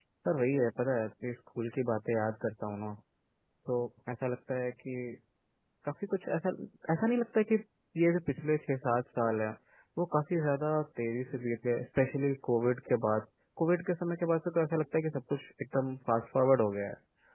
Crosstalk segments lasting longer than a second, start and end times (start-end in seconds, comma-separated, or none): none